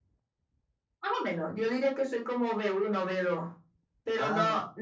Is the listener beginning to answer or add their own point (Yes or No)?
No